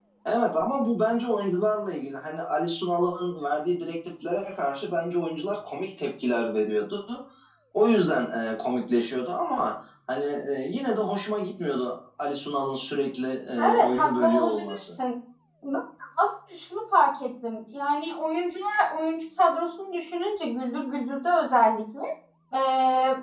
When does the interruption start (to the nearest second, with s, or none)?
14 s